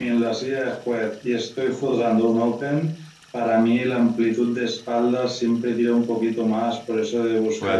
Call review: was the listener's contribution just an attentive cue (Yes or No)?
Yes